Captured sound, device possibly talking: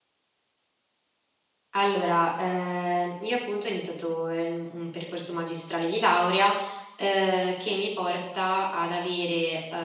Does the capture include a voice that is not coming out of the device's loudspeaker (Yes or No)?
Yes